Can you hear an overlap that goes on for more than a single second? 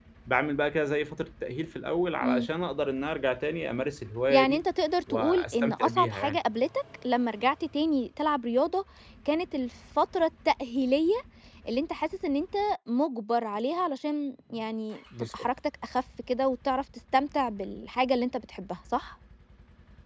Yes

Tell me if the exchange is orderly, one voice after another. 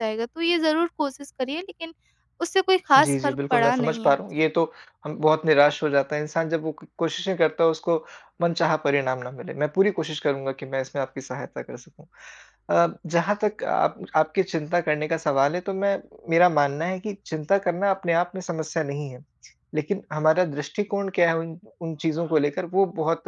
No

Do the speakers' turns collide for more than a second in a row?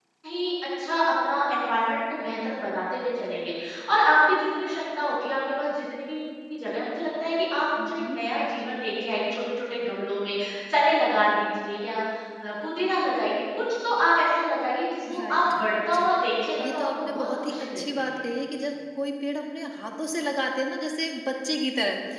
Yes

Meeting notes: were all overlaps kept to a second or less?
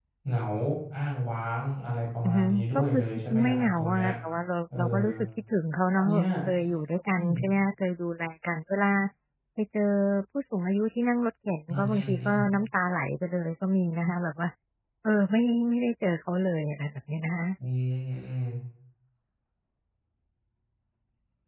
No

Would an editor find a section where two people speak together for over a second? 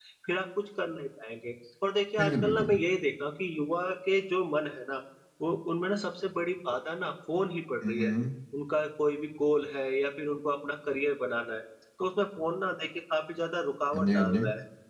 No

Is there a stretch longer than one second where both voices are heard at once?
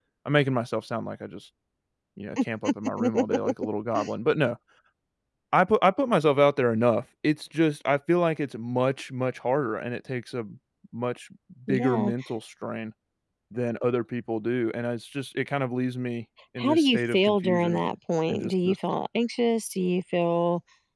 Yes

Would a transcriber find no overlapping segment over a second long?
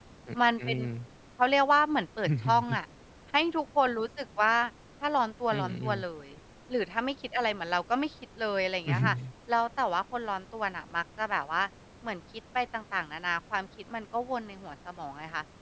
Yes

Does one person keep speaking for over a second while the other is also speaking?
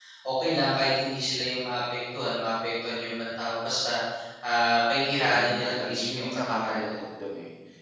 Yes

